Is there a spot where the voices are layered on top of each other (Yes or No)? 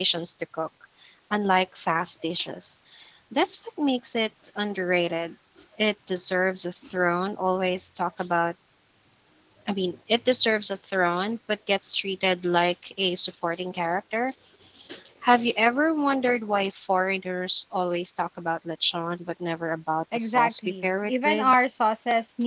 Yes